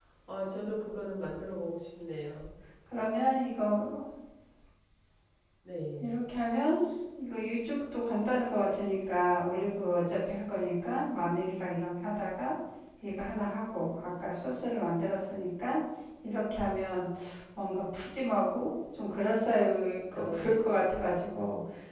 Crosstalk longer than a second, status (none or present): none